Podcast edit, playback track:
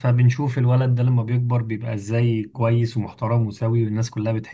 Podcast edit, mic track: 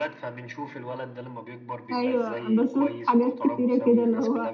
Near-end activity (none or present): present